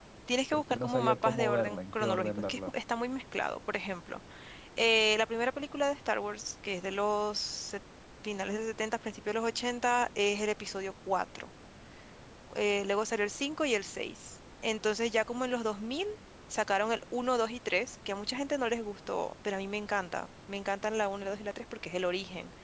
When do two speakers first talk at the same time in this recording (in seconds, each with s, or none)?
0.5 s